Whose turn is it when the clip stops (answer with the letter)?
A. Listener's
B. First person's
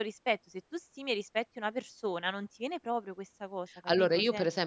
A